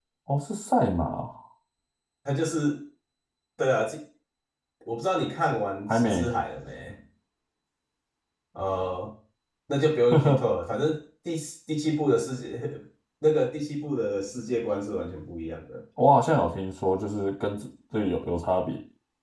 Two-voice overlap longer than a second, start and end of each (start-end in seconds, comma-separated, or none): none